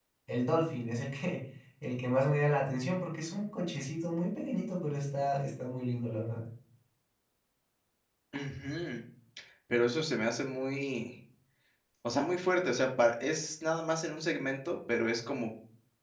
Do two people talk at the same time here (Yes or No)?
No